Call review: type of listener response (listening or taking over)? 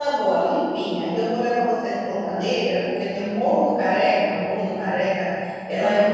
listening